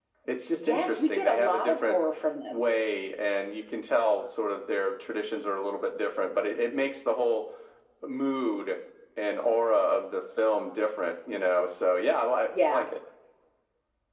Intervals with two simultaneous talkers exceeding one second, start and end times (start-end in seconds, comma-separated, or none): 0.6-2.0